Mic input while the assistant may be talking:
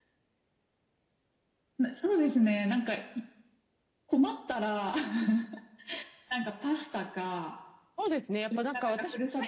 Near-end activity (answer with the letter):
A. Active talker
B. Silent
A